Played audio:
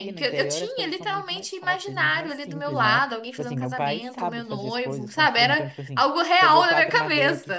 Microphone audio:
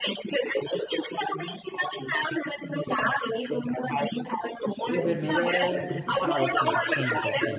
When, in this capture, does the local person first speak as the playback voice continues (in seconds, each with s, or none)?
4.8 s